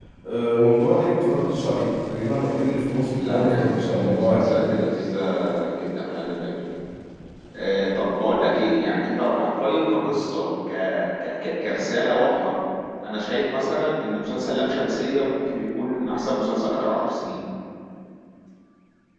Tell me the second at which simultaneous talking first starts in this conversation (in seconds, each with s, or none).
3.1 s